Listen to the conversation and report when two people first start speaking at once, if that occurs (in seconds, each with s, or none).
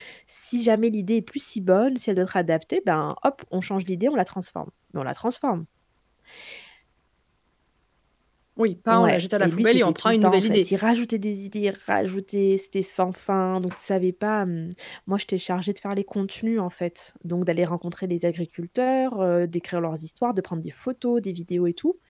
8.9 s